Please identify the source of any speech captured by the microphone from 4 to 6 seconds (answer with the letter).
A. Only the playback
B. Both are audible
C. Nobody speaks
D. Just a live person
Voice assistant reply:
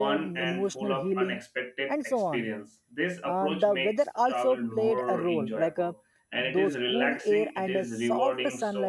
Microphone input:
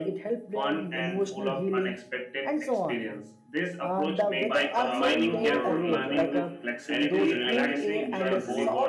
B